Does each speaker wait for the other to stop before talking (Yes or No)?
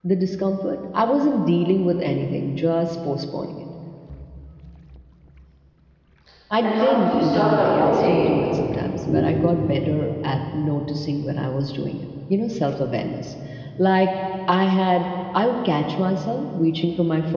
No